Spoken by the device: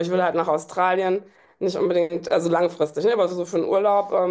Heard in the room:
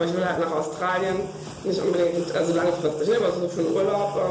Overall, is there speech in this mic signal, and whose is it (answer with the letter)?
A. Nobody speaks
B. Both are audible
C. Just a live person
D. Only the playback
D